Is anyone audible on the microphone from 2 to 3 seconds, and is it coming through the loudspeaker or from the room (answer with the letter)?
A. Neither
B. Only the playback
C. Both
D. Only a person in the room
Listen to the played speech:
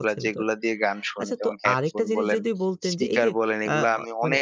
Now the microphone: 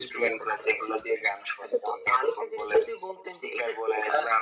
B